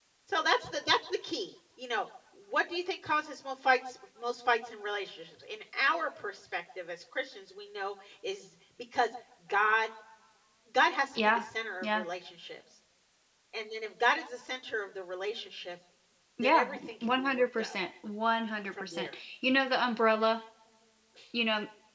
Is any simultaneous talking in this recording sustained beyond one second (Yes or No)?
Yes